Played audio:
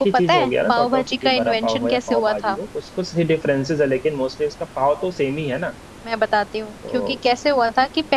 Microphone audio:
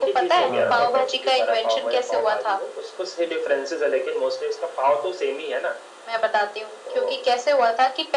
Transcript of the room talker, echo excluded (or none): हाँ हाँ